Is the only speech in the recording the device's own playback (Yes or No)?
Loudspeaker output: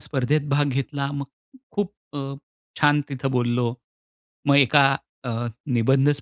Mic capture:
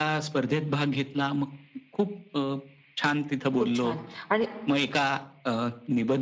No